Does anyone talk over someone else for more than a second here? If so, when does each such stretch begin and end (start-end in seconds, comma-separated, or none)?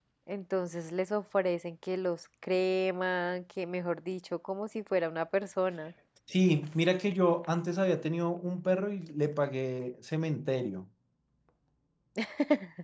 none